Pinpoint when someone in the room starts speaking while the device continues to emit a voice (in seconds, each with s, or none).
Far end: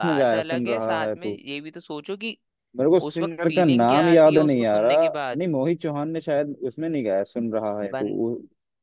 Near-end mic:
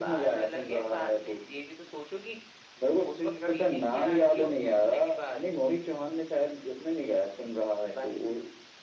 none